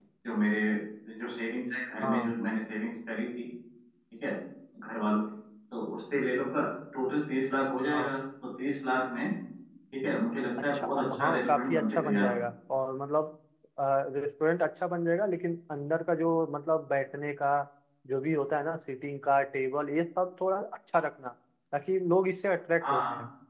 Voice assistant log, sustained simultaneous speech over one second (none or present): present